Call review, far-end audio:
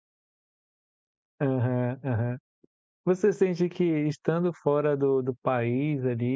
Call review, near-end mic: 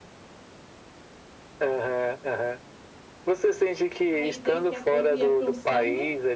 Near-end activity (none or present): present